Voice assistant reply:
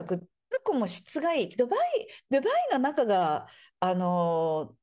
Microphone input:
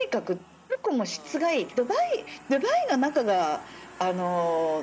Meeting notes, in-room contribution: none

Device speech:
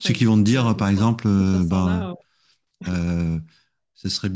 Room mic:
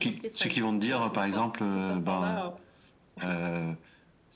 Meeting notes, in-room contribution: none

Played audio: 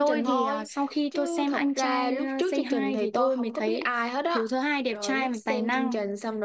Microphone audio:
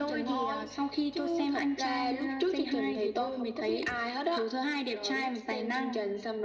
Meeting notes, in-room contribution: none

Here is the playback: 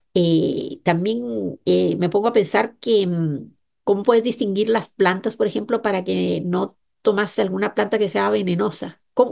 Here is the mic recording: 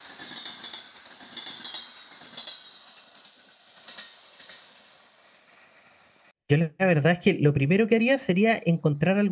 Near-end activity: present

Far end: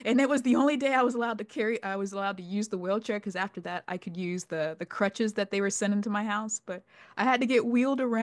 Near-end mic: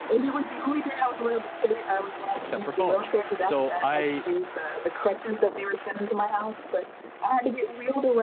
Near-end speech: present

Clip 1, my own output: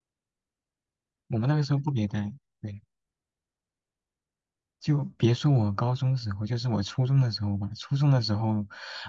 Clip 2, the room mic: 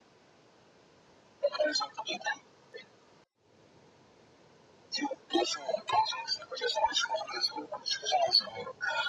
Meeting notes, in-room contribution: none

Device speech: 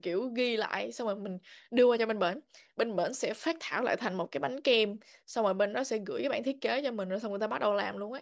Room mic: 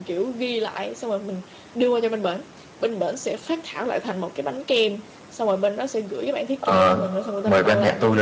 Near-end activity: present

